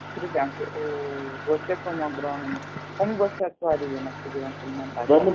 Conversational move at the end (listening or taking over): taking over